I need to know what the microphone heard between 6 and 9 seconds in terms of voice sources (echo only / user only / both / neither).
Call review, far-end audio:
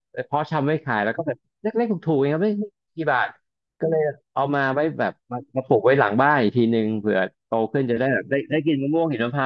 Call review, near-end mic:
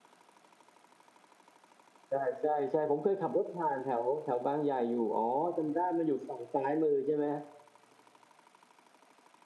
user only